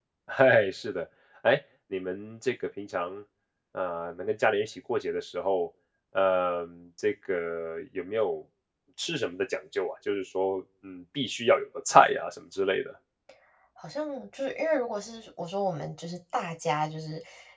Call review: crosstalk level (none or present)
none